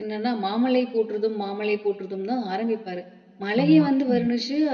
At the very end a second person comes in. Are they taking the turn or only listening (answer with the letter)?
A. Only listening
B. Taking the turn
A